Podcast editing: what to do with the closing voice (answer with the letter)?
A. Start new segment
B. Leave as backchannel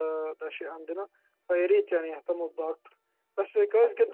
B